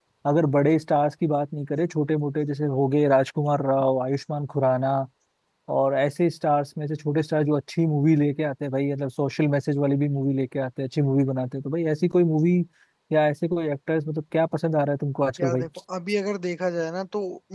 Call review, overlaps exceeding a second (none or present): none